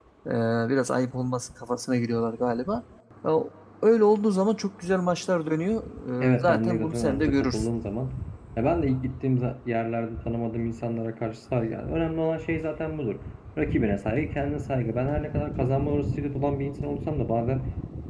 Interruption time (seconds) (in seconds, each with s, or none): 6.3 s